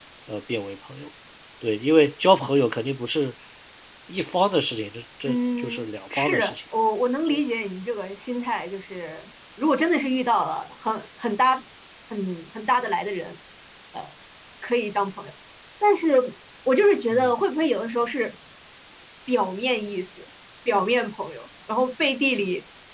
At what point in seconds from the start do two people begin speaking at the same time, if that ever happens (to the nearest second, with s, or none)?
5 s